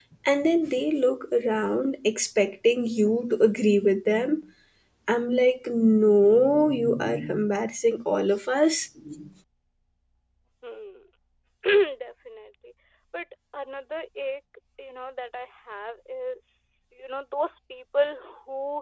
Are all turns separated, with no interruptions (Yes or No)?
Yes